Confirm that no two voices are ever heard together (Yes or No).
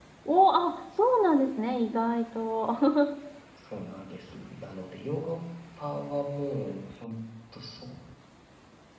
Yes